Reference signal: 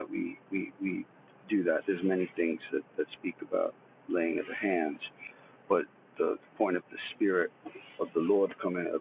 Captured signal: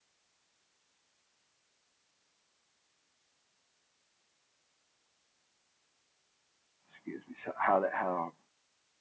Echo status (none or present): none